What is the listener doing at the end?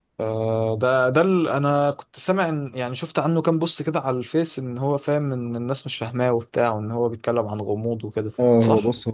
taking over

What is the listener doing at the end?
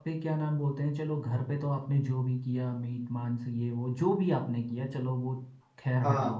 listening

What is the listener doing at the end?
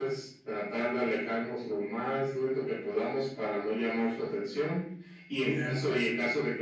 listening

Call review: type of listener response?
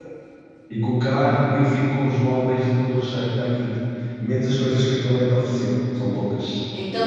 taking over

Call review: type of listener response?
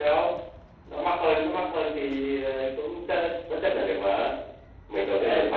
taking over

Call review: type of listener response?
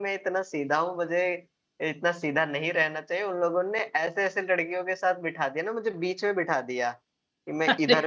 listening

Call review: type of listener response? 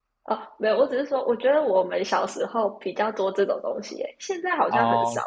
taking over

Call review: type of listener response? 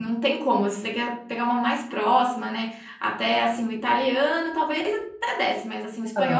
listening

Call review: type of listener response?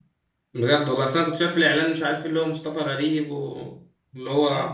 listening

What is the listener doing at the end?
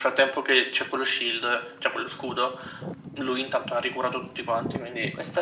taking over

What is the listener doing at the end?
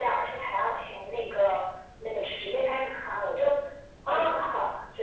listening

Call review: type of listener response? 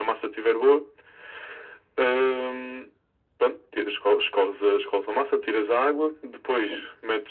listening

